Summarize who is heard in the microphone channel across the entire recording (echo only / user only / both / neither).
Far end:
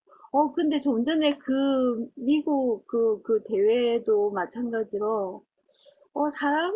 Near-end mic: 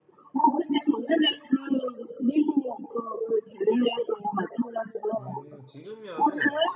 both